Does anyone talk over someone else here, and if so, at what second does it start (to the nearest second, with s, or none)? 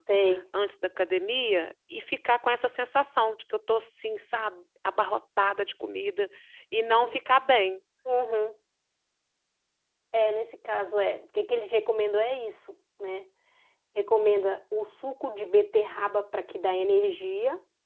none